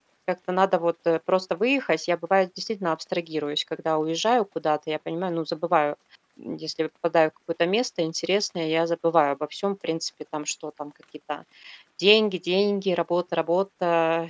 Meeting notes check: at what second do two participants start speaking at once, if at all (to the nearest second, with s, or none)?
none